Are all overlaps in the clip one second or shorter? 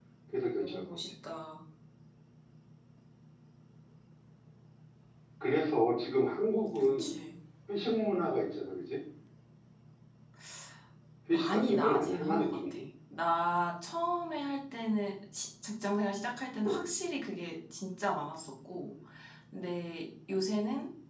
No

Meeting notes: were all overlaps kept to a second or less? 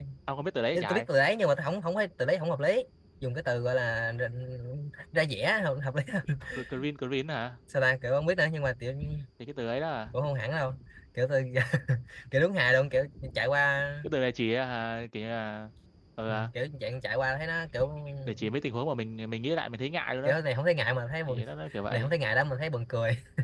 Yes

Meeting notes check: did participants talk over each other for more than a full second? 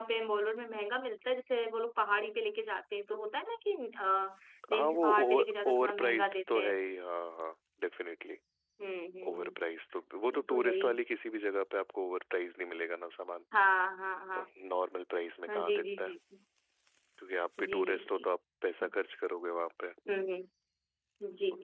Yes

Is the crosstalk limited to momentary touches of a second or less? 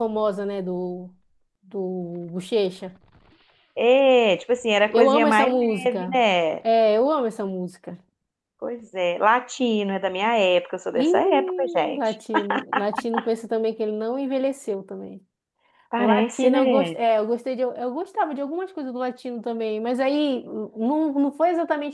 No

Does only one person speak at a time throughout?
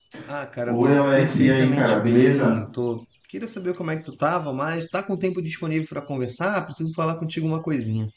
No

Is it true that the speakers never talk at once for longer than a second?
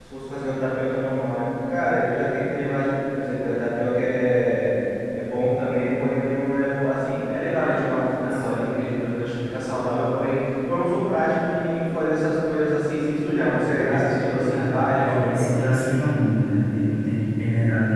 No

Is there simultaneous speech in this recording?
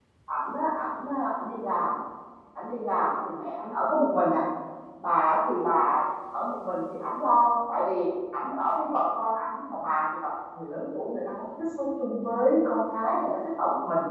No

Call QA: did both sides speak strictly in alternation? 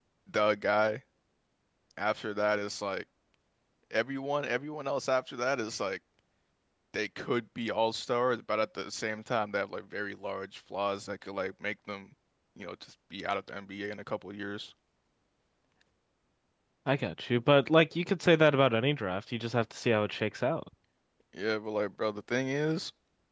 Yes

